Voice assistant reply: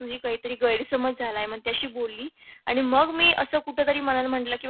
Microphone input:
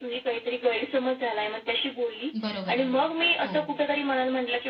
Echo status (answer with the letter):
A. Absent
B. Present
B